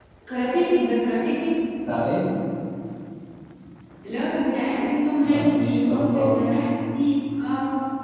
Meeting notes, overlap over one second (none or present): present